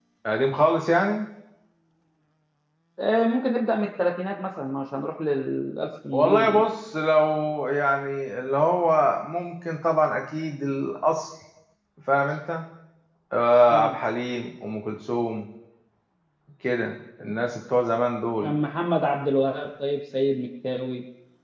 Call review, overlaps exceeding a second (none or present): none